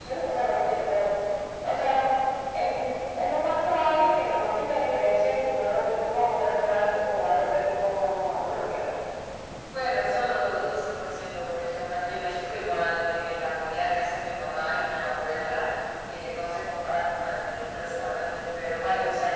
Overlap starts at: none

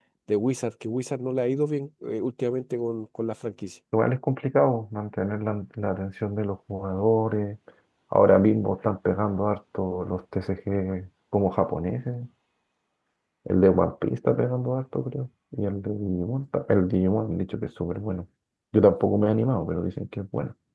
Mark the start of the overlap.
none

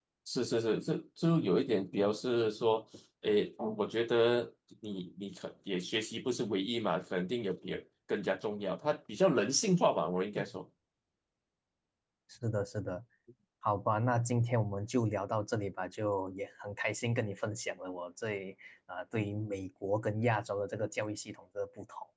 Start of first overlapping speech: none

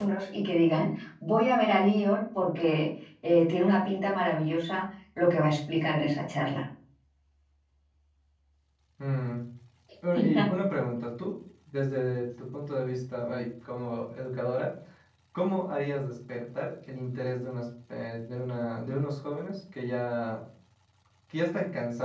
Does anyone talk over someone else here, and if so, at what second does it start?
none

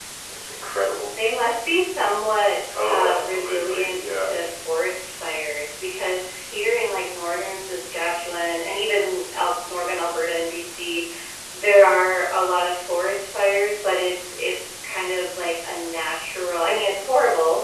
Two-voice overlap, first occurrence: 2.7 s

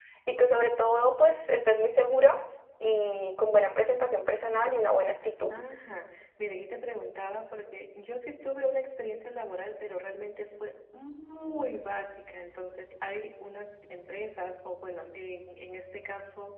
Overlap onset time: none

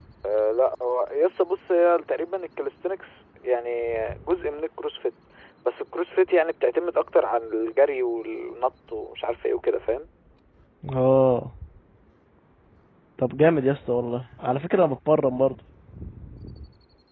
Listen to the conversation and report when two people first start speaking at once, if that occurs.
none

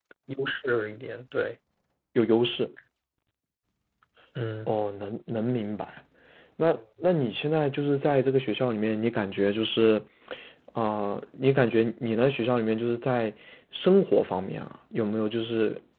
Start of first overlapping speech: none

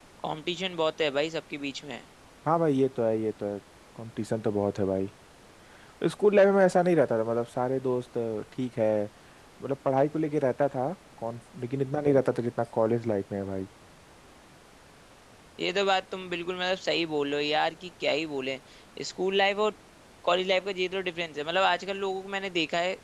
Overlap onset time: none

